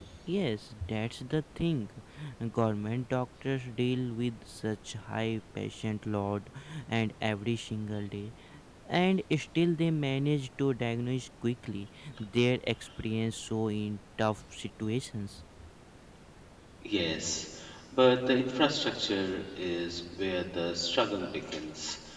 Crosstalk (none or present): none